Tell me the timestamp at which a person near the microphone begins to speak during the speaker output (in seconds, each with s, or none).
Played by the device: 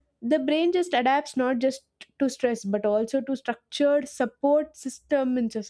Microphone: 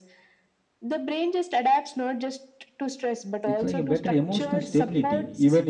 3.4 s